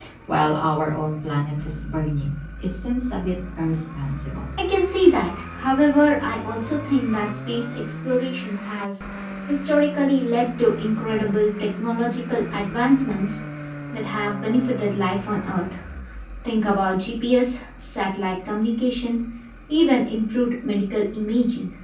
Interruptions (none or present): none